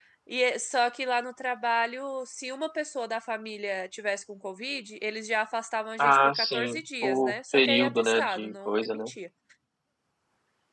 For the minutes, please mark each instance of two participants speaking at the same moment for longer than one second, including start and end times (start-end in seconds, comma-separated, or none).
6.0-9.1